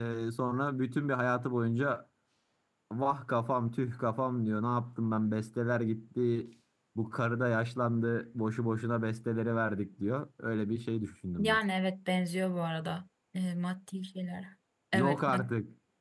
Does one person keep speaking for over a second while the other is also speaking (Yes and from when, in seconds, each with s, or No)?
No